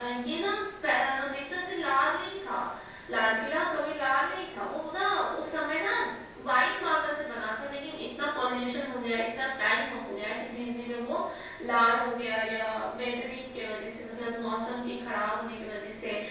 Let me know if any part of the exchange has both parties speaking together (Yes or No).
No